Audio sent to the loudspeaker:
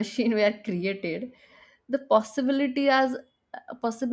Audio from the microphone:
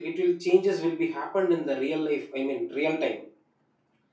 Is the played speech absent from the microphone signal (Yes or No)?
Yes